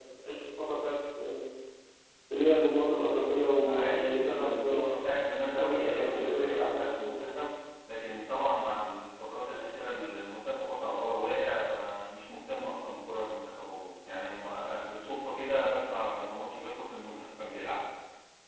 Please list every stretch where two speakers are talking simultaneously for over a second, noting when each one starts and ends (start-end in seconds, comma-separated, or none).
3.6-5.0, 5.5-7.3